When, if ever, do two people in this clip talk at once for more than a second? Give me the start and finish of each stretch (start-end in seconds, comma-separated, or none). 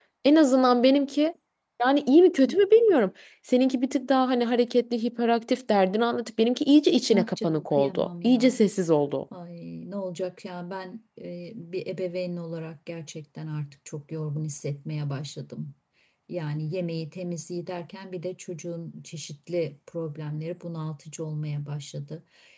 7.1-8.6